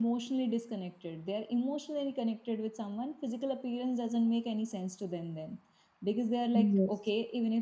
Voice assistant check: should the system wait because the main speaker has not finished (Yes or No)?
Yes